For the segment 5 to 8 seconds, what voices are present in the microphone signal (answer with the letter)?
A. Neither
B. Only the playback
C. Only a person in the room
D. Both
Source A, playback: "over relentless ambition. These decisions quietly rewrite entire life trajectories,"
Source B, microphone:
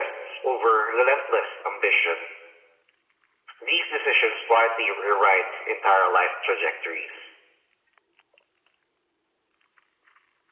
B